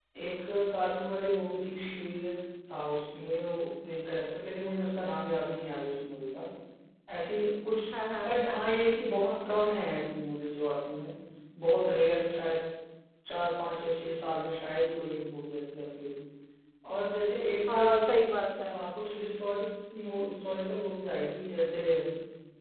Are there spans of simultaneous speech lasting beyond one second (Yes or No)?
No